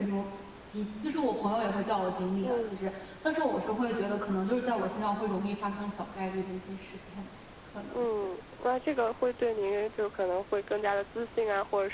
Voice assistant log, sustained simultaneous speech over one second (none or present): none